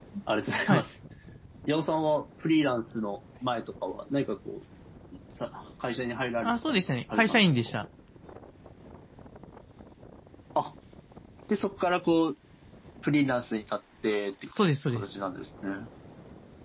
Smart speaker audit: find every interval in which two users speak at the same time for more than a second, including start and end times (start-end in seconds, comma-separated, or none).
6.4-7.7